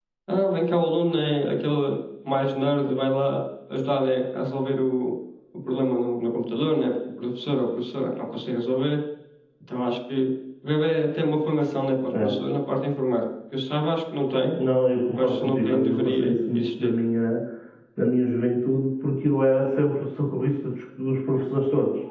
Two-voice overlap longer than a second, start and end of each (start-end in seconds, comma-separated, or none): 15.2-16.9